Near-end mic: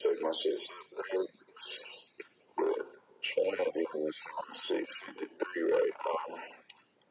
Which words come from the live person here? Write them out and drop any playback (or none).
none